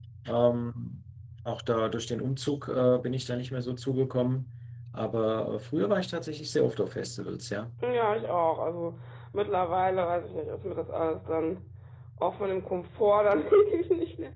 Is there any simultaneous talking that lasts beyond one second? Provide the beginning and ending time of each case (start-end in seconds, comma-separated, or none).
none